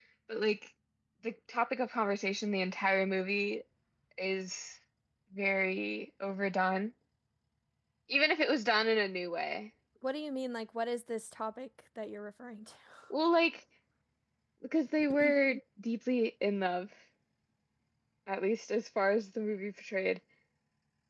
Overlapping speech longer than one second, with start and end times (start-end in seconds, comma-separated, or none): none